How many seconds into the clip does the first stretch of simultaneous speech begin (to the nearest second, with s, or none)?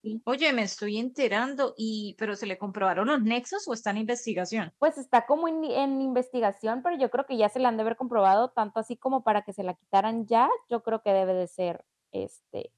none